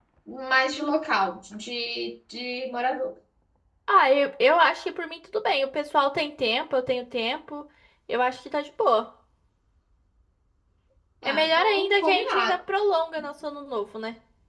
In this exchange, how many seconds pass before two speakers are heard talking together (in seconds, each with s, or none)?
11.2 s